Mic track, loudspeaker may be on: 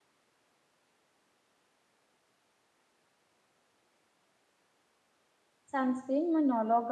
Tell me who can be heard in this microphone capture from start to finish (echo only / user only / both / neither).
user only